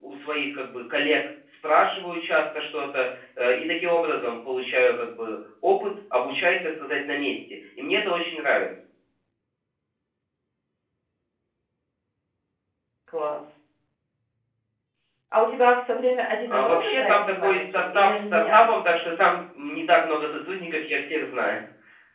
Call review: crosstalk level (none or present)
present